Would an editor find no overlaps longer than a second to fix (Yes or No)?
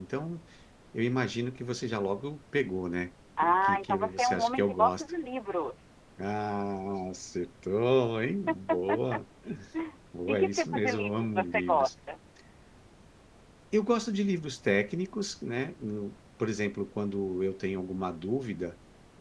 No